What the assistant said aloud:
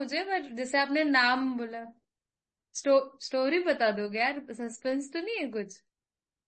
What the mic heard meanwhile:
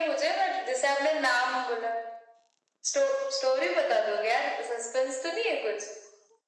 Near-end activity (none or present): none